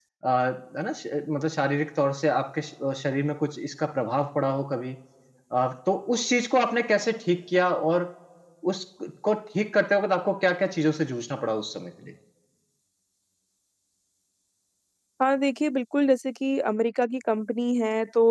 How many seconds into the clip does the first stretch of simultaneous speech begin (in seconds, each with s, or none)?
none